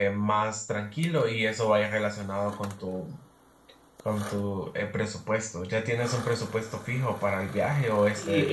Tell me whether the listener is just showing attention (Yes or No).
No